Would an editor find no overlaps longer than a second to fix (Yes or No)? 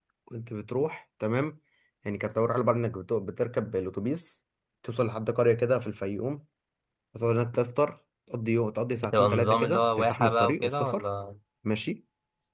No